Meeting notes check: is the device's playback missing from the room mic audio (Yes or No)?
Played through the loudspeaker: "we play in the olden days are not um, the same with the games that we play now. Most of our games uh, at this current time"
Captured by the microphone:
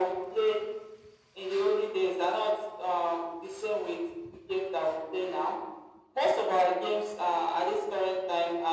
No